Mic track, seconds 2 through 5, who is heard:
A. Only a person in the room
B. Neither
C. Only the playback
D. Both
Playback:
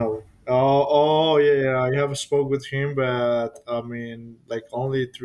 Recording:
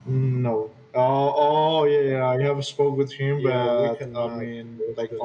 D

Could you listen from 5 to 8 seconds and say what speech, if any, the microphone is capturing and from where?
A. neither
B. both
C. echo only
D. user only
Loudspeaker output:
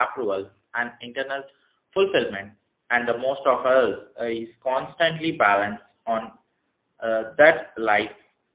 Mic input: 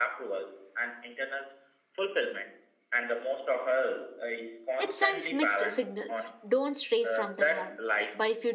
B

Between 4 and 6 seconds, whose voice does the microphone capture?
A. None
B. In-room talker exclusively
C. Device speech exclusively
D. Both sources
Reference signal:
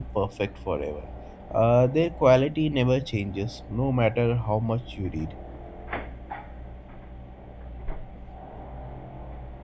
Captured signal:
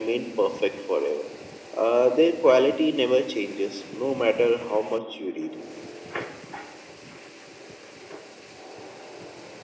C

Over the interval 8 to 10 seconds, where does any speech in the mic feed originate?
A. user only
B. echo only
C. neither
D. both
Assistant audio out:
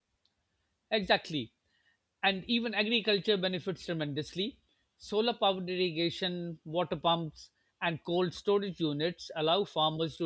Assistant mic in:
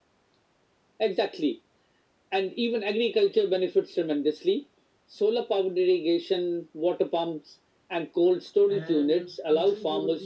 D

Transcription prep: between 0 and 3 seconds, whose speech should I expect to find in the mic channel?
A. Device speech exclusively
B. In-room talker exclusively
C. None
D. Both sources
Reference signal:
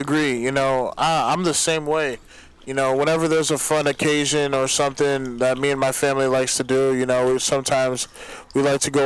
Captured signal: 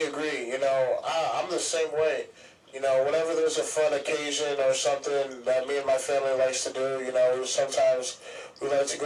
A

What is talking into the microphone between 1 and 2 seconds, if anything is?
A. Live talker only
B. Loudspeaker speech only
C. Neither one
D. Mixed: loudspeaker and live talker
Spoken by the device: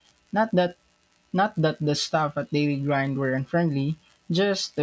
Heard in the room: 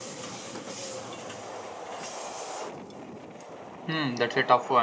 C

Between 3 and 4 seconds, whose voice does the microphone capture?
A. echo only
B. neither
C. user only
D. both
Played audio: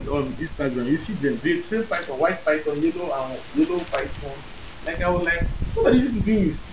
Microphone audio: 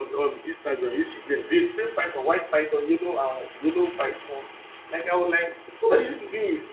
A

